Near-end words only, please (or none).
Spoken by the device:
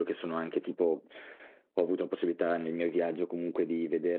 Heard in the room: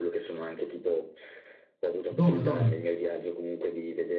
Dove, dove?